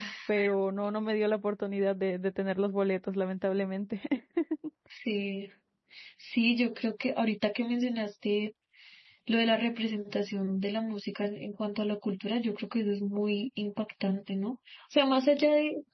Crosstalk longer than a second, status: none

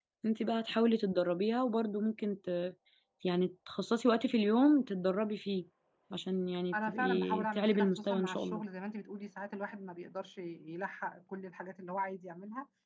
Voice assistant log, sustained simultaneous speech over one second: present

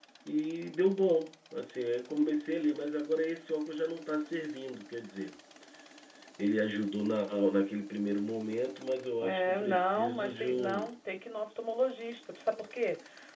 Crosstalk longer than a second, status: present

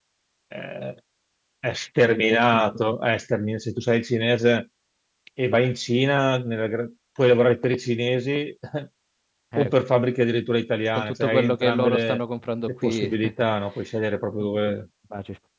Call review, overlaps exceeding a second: present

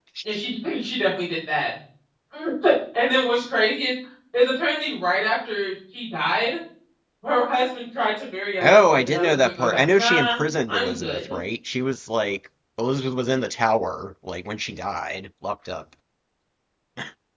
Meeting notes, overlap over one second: present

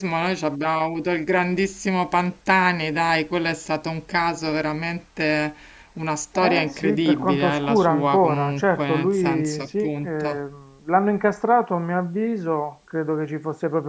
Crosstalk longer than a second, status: present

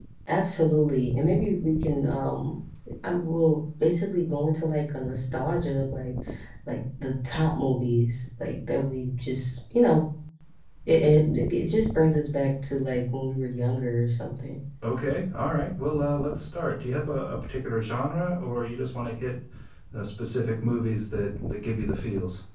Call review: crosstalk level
none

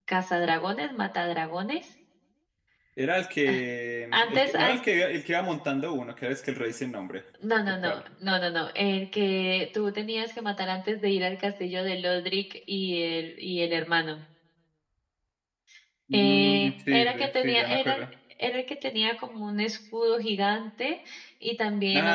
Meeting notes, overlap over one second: present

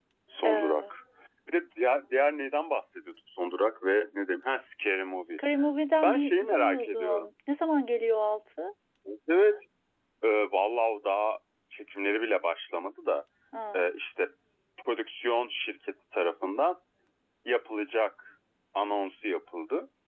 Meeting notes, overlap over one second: present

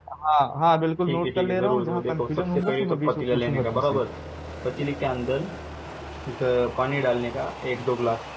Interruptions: present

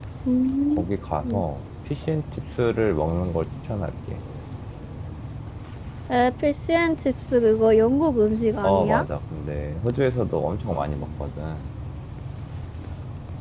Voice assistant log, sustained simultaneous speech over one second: none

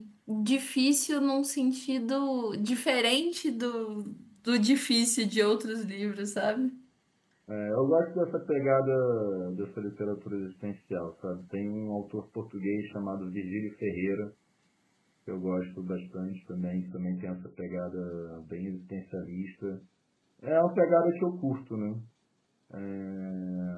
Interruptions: none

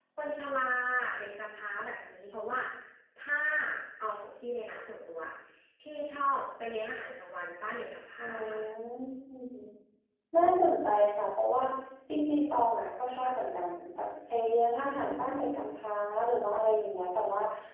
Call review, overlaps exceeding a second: none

